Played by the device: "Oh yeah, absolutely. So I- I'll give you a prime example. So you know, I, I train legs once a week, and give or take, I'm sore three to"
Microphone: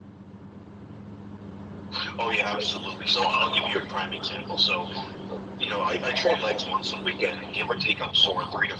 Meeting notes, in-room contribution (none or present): none